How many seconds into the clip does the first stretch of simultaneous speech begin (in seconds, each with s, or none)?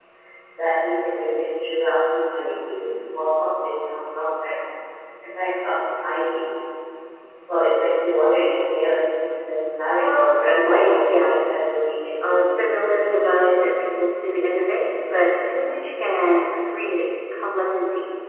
10.0 s